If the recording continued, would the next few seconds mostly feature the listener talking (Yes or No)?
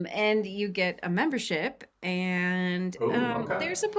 No